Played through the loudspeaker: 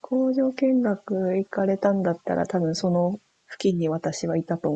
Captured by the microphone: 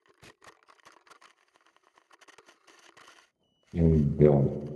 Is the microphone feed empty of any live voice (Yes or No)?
No